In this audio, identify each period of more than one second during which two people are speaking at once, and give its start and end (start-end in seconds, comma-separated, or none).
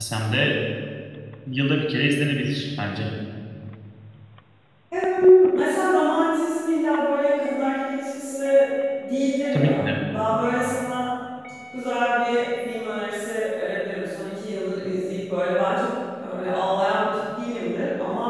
none